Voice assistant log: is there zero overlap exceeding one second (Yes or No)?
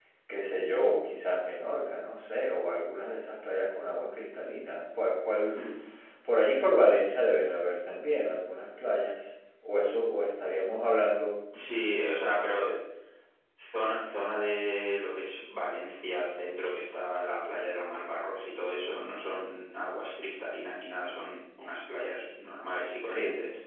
Yes